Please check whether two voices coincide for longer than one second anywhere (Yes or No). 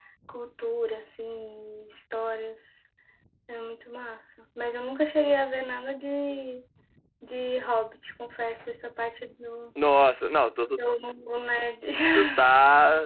No